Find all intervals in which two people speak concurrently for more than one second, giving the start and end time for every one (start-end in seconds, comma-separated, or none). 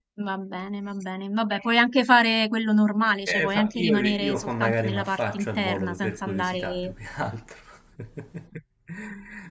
3.2-6.9